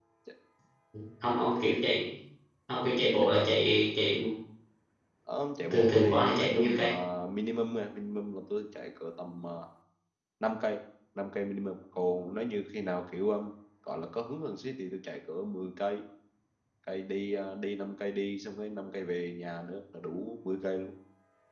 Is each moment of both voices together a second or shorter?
No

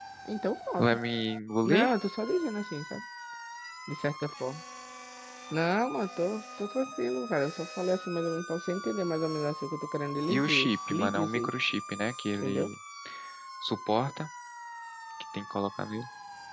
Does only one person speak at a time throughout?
No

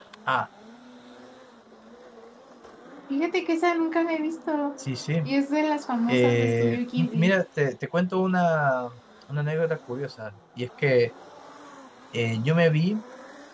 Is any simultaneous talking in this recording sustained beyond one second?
Yes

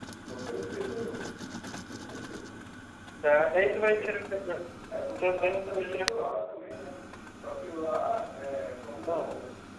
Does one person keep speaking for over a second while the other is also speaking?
Yes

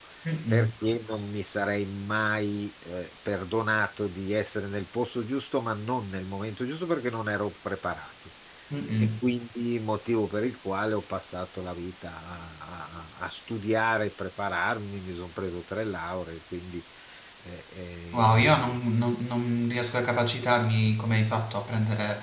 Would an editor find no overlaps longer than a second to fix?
Yes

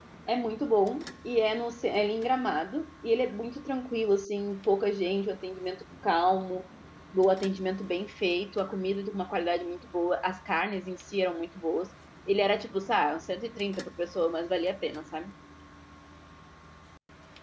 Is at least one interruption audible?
No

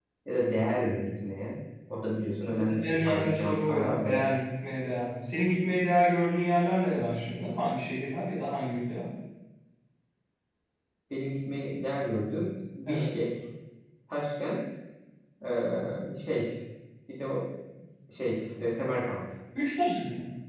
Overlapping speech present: Yes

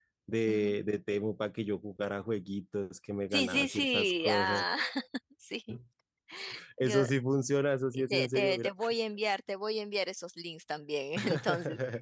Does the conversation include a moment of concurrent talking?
Yes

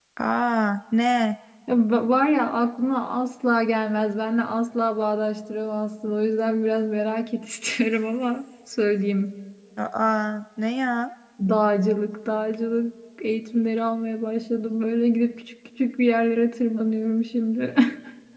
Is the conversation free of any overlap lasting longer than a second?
Yes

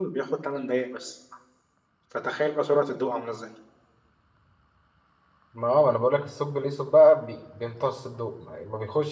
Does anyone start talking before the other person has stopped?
No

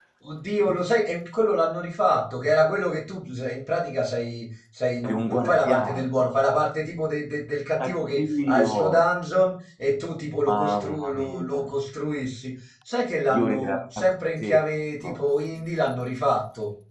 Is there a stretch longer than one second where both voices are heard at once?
Yes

